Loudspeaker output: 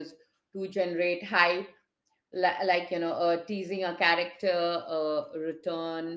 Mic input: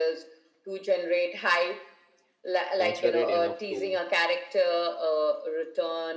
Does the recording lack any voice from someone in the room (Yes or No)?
No